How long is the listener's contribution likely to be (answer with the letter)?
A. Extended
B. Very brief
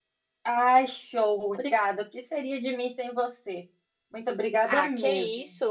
A